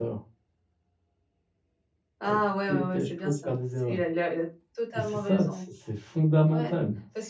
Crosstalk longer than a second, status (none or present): present